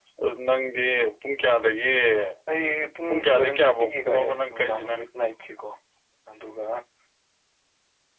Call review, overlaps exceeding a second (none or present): present